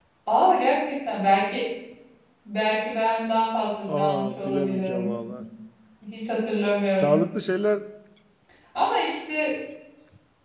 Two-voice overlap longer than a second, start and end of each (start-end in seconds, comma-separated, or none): 3.9-5.2